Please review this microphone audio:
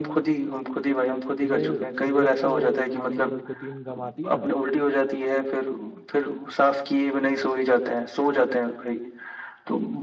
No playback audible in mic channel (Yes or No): No